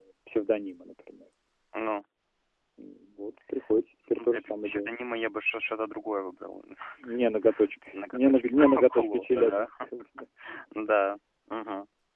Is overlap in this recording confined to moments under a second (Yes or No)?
No